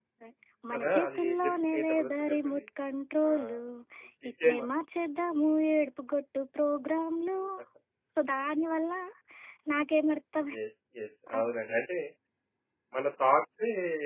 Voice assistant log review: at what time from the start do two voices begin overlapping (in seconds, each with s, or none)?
0.7 s